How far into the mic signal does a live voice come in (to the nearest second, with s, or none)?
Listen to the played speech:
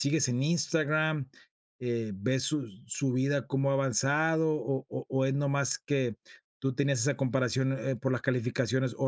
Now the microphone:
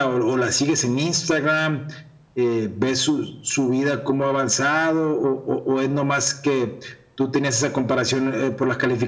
none